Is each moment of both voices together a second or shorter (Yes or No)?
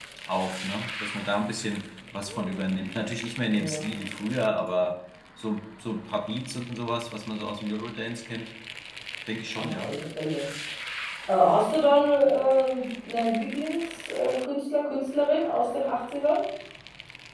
Yes